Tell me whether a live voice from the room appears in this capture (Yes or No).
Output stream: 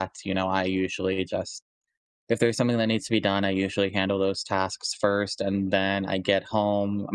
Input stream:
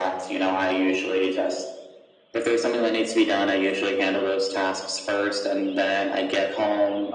No